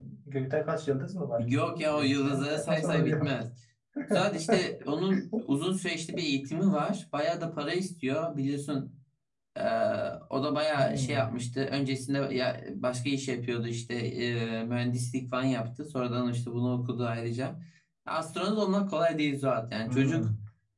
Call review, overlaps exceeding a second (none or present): present